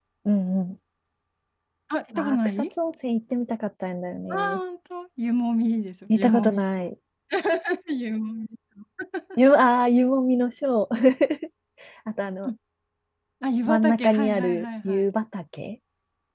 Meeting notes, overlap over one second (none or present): present